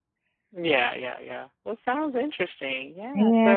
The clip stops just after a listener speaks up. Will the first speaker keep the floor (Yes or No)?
No